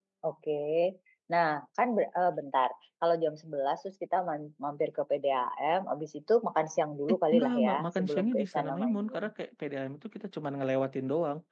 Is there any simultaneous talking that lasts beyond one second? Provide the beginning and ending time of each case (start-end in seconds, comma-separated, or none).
7.1-9.2